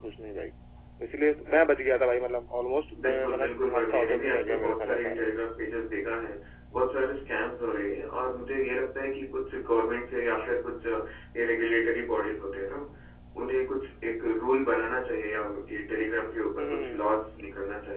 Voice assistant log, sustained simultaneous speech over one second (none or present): present